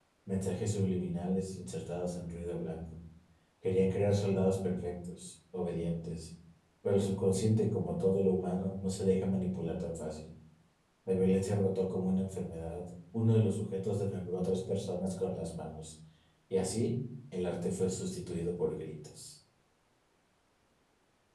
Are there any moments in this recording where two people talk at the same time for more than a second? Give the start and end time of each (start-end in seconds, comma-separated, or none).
none